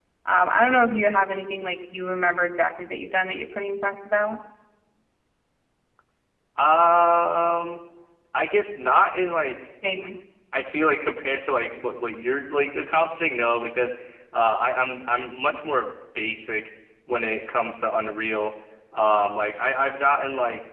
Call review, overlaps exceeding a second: none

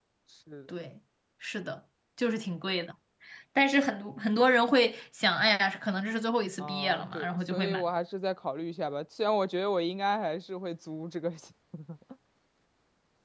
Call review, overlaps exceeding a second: present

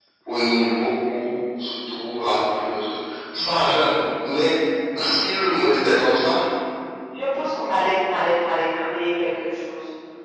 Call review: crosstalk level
none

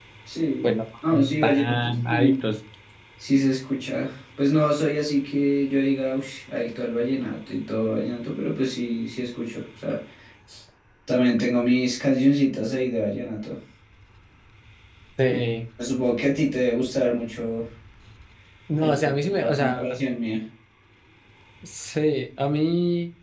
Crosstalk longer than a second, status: present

